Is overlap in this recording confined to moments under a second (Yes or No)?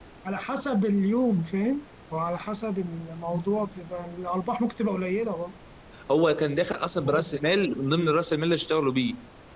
Yes